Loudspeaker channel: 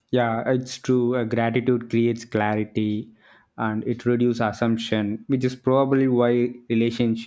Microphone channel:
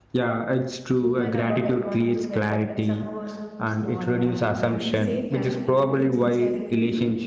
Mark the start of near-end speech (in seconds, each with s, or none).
0.9 s